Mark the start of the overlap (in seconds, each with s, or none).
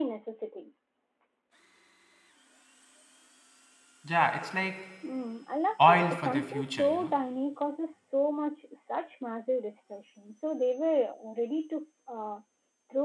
5.9 s